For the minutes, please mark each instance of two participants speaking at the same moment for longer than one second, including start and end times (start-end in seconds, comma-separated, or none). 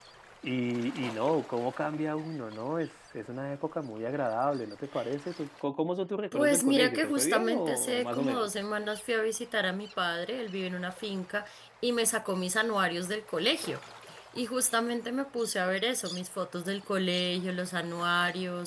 6.3-8.5